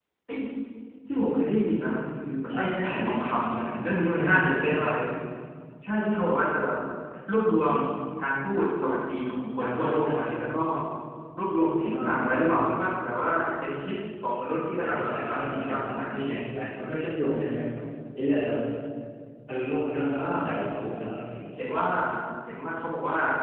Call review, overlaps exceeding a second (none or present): present